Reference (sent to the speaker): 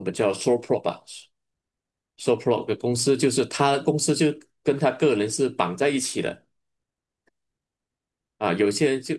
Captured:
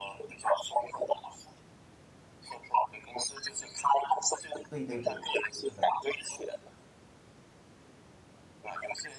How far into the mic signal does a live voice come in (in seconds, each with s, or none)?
4.7 s